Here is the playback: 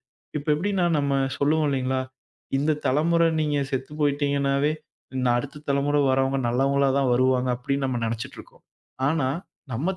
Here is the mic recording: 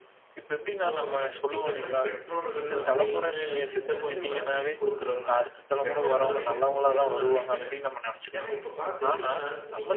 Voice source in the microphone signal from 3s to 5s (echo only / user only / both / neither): both